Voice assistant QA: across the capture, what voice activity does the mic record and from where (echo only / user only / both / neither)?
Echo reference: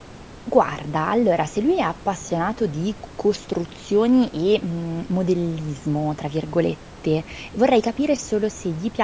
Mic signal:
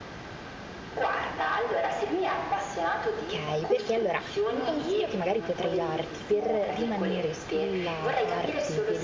both